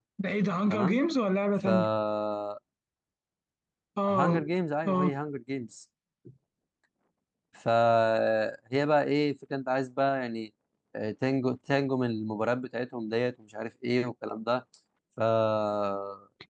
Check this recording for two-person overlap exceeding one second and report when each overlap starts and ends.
none

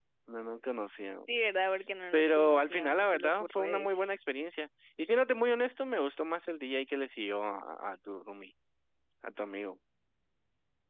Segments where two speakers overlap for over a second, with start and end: 2.1-4.1

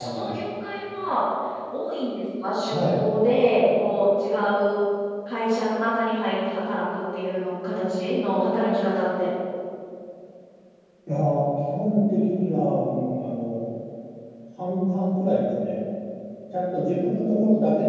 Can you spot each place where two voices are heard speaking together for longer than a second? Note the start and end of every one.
none

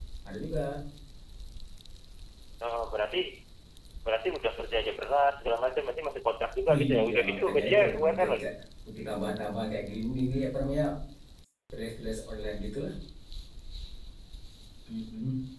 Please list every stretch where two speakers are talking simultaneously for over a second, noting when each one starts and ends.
6.7-8.5

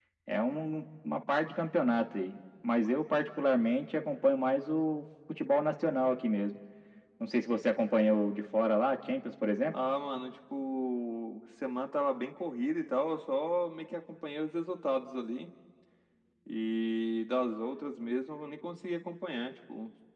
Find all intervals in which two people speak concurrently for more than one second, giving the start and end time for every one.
none

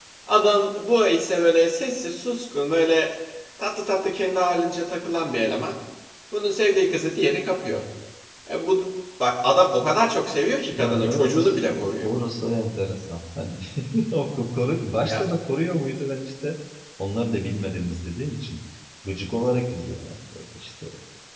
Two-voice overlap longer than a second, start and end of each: 10.7-12.1

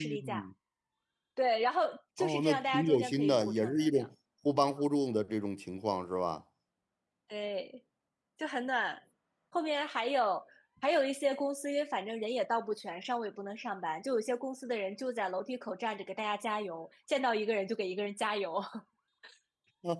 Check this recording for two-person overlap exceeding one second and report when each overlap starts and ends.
2.2-4.1

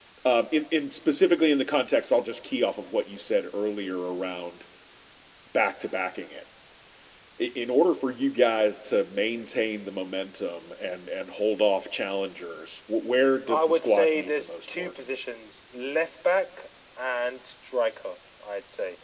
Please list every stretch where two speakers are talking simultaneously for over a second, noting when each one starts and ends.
13.5-14.9

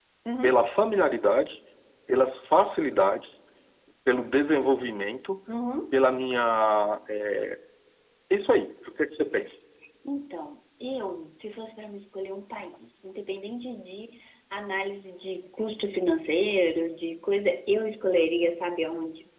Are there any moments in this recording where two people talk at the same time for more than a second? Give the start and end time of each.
none

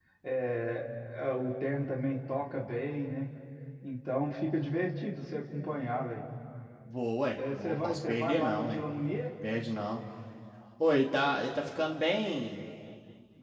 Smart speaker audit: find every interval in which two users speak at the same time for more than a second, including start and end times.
7.5-8.8

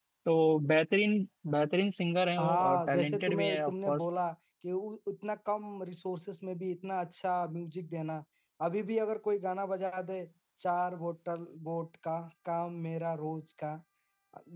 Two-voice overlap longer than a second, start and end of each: 2.4-4.0

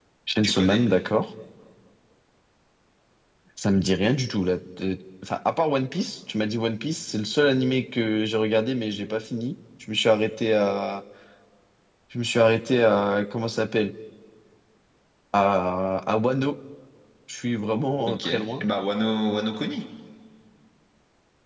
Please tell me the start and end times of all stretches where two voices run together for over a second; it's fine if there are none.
none

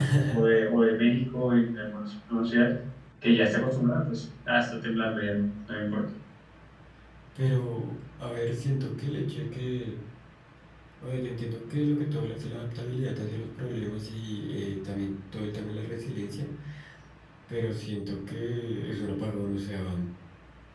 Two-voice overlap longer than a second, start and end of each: none

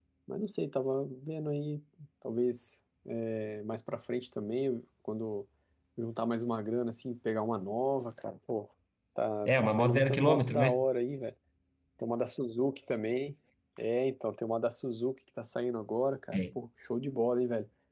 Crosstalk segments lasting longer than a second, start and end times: 9.5-10.8

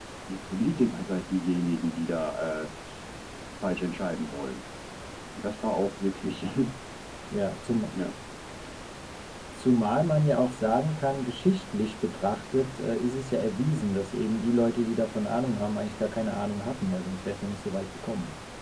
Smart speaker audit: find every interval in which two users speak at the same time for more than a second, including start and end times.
none

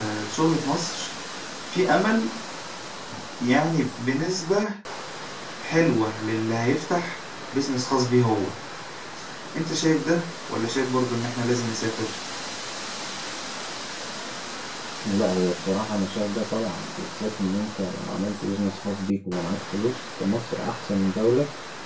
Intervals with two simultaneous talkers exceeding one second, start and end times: none

